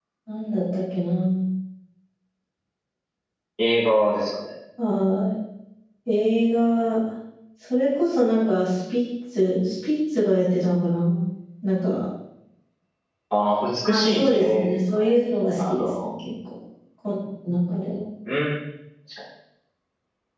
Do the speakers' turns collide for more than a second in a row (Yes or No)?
Yes